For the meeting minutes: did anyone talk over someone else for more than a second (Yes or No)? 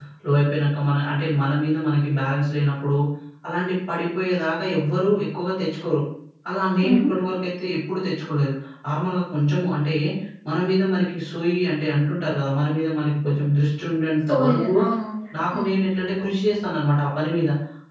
No